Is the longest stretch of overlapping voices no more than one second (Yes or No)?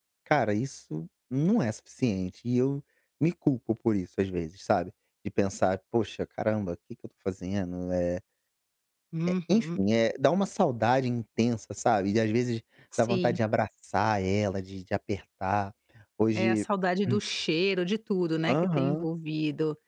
Yes